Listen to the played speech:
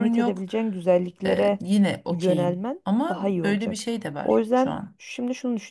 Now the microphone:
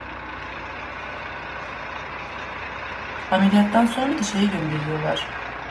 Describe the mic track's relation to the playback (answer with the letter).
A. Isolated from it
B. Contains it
A